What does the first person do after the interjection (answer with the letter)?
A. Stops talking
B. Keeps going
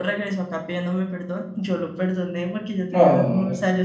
B